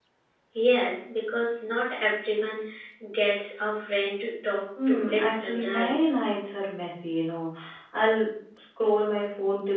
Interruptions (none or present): present